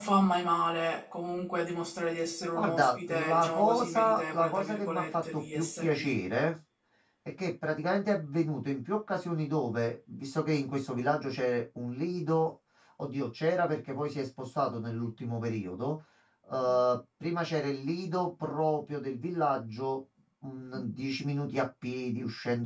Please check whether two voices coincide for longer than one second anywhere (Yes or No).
Yes